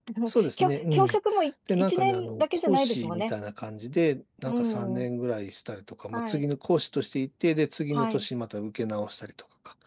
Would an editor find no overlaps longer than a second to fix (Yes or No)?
No